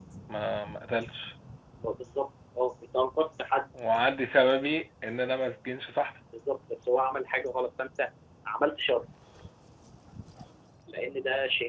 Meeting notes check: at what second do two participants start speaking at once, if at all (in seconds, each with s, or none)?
none